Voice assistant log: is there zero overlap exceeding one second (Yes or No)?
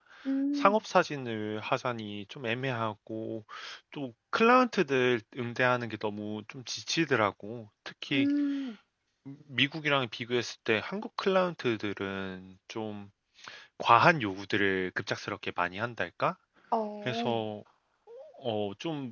Yes